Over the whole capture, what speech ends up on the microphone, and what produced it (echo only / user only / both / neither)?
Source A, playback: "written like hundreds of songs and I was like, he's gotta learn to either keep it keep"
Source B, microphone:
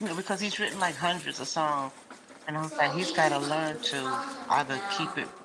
both